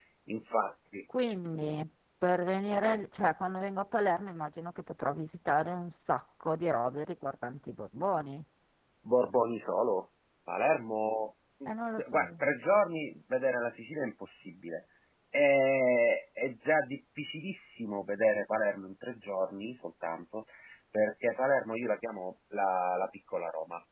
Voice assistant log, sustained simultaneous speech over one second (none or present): none